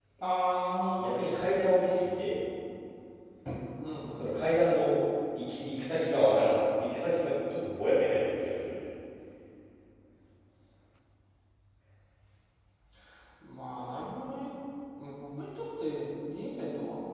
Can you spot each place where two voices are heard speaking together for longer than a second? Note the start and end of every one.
none

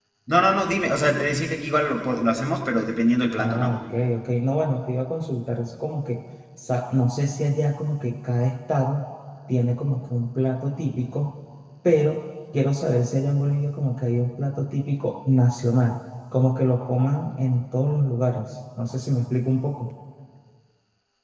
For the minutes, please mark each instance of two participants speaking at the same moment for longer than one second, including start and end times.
none

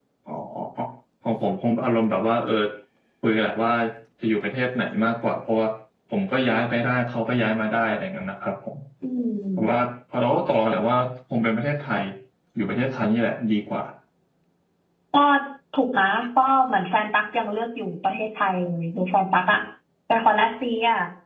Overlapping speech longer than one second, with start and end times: none

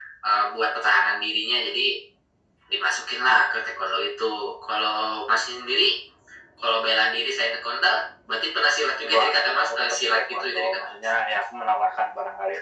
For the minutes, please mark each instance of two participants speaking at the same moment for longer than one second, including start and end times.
9.0-11.0

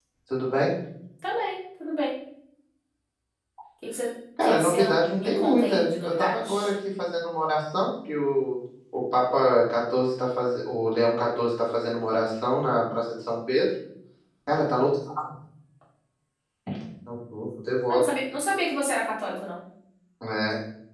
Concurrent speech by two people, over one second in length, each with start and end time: 4.4-6.7

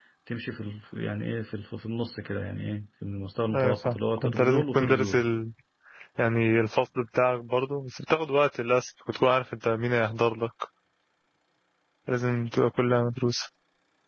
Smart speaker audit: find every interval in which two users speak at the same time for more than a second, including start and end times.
3.5-5.2

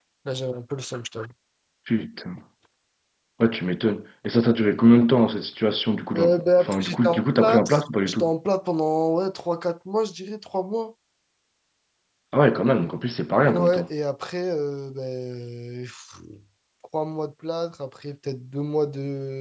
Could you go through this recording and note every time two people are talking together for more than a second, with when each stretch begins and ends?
6.2-8.3

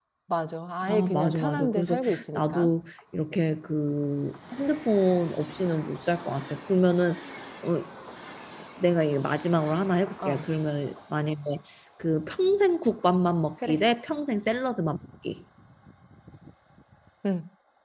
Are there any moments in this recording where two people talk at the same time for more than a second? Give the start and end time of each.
0.8-2.7

